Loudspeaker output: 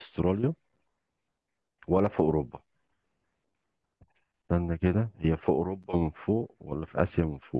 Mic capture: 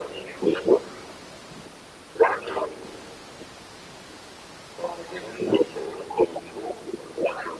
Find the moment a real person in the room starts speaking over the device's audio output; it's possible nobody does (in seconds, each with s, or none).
none